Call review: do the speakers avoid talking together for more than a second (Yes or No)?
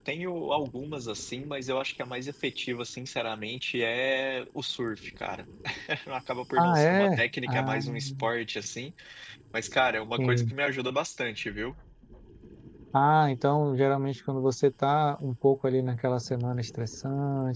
No